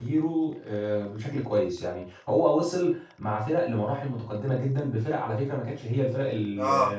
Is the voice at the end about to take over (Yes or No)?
No